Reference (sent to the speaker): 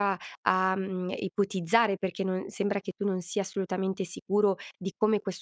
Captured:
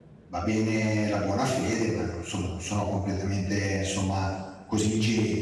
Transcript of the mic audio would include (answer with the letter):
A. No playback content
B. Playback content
A